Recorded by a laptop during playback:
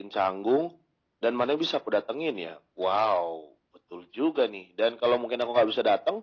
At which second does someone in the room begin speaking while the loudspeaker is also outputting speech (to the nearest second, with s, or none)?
none